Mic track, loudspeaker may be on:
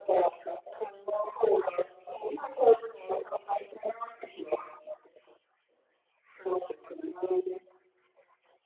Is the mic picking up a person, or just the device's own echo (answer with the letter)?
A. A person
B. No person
B